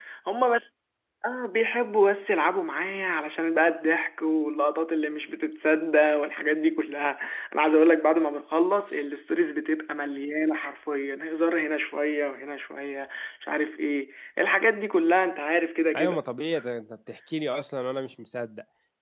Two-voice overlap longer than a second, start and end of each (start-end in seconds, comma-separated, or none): none